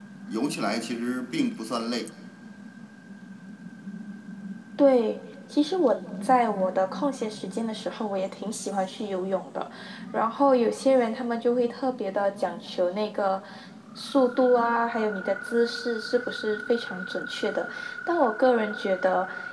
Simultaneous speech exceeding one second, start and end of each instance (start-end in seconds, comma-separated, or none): none